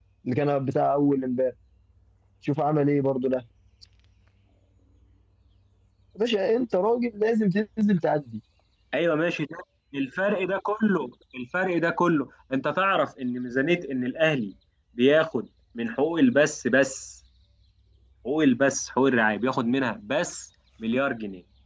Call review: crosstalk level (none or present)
none